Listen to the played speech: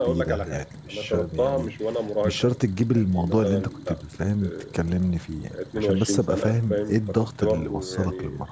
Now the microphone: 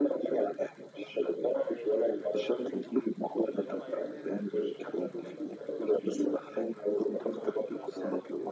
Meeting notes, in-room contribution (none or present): present